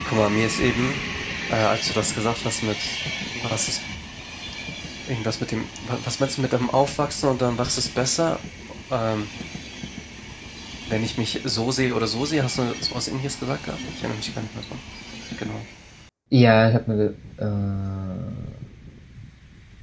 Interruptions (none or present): none